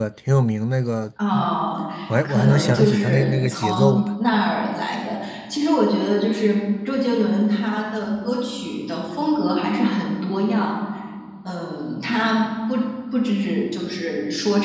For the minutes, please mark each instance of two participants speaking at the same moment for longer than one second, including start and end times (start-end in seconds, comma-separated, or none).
2.2-4.0